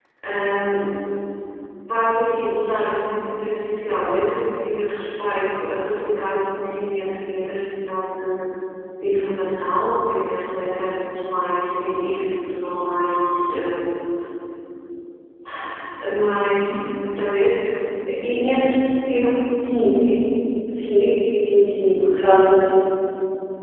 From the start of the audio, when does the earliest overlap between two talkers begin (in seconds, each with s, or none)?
none